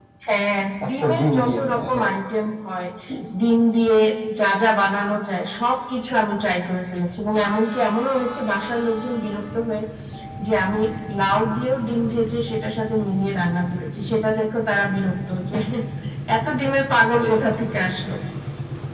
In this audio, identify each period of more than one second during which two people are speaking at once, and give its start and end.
0.8-2.1

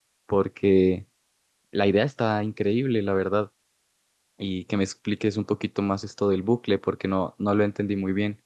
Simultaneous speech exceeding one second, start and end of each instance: none

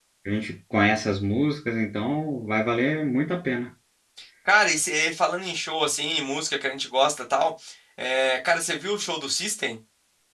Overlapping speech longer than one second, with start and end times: none

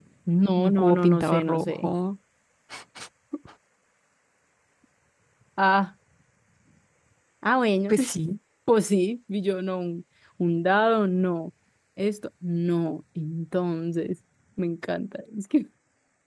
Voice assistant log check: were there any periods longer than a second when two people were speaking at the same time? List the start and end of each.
0.6-1.9

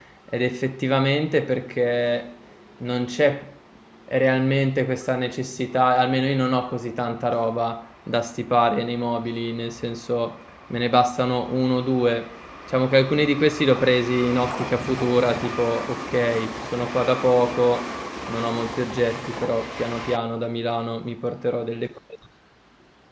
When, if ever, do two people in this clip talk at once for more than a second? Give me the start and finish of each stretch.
none

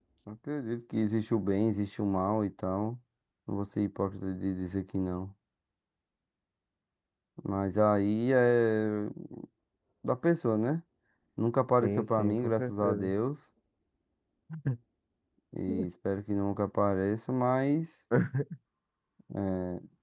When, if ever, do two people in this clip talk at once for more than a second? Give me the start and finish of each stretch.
11.8-13.2

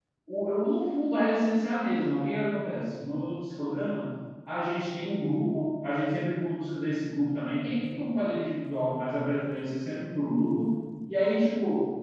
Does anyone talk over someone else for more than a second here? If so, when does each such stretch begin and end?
none

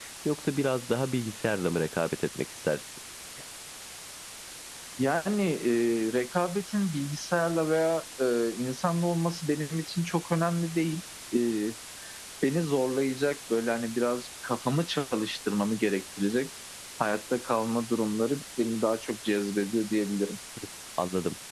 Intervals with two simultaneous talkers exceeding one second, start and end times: none

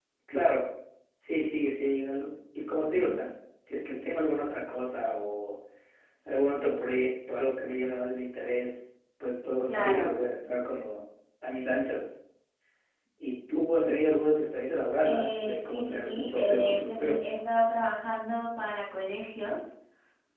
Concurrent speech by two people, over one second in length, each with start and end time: 15.0-17.2

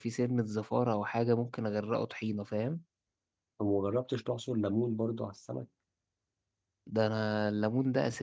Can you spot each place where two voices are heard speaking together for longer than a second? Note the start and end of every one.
none

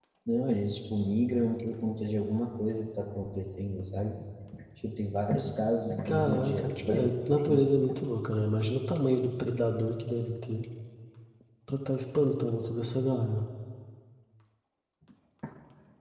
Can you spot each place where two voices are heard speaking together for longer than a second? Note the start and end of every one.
6.0-7.6

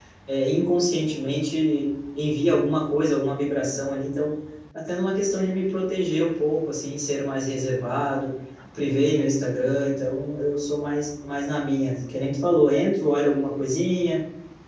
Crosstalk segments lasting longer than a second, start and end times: none

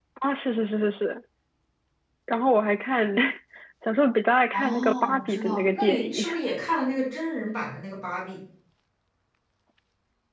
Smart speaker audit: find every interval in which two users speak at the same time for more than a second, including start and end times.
4.5-6.3

